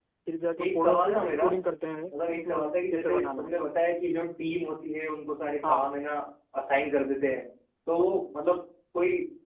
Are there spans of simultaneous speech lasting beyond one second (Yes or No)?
Yes